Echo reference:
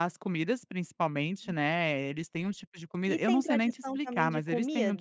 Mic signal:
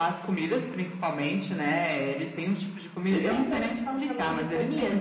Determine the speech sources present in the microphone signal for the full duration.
echo only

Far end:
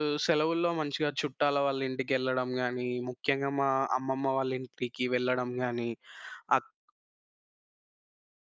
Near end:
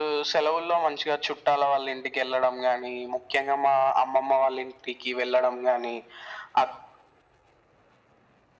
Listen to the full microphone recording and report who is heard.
echo only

